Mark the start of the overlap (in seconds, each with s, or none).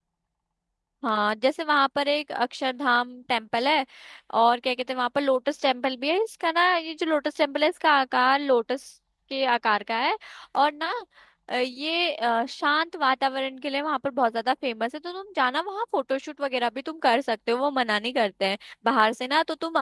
none